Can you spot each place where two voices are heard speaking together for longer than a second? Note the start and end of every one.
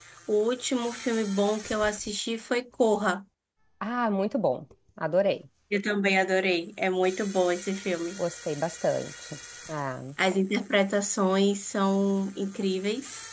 none

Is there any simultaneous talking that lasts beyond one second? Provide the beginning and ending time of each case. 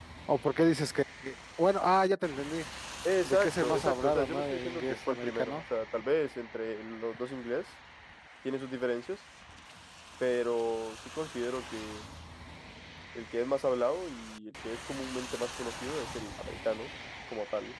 3.2-5.6

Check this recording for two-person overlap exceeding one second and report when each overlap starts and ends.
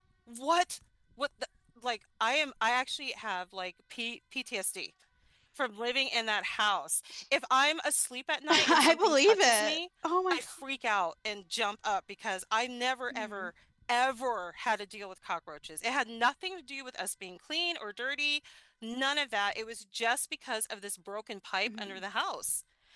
8.5-9.8

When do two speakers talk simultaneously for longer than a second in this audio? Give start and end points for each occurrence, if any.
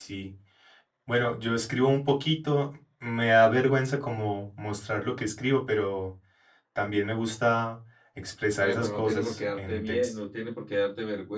8.6-10.1

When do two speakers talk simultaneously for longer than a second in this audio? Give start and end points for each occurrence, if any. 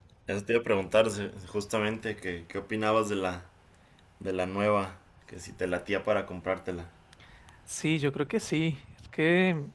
none

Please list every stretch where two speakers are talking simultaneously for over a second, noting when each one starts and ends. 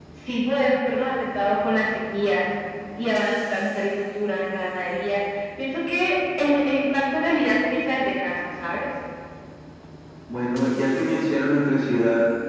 none

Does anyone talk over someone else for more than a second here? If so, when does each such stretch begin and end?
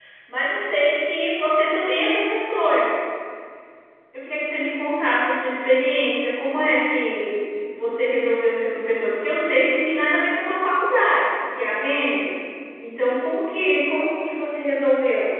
none

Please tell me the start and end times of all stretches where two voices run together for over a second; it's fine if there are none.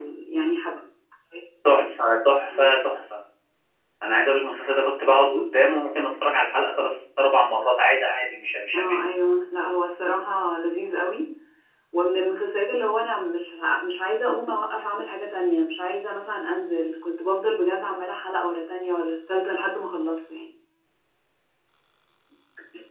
none

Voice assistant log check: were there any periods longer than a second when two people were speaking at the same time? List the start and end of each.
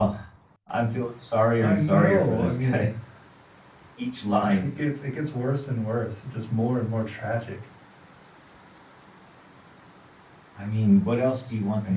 1.6-2.8

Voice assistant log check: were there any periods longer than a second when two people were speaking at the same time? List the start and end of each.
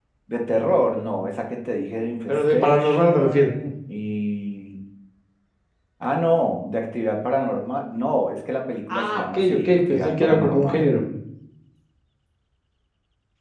2.3-3.5, 8.9-10.9

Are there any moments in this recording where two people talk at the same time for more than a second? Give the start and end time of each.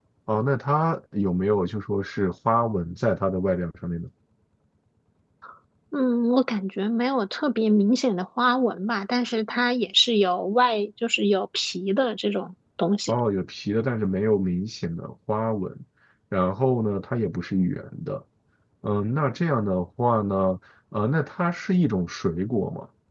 none

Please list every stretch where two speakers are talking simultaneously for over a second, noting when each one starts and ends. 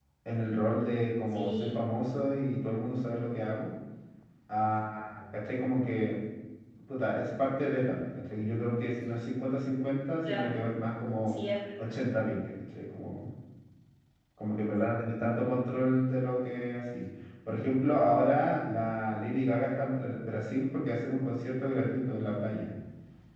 none

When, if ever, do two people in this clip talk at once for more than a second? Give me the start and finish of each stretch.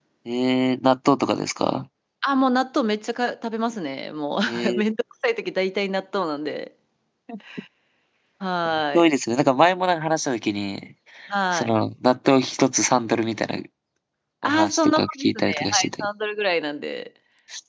14.4-16.1

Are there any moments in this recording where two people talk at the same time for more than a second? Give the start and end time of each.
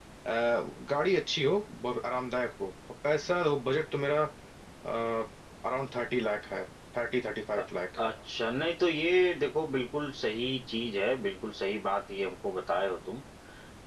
none

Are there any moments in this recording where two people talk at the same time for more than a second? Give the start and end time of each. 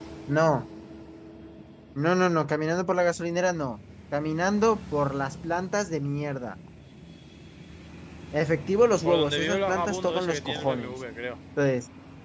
9.1-10.9

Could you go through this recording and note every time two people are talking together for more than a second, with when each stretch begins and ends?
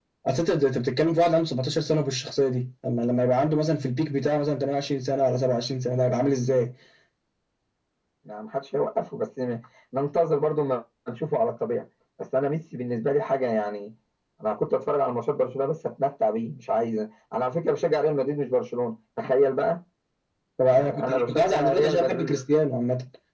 20.7-22.3

